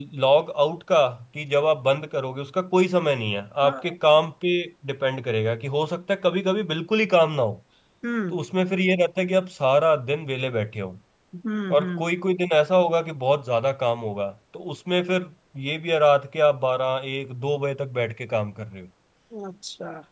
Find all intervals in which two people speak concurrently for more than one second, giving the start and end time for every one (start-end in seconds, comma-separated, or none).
none